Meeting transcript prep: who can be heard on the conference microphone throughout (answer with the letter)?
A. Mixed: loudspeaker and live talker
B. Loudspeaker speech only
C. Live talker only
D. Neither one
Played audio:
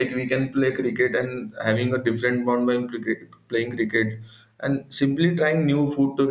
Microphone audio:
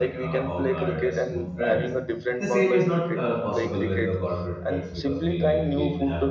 A